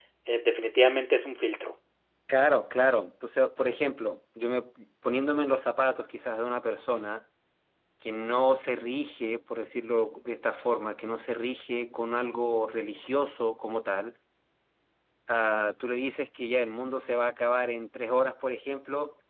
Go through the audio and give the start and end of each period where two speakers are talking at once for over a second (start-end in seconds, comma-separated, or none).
none